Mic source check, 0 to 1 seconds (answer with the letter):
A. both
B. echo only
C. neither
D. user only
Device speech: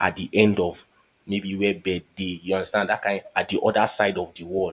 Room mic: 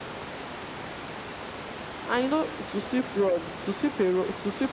C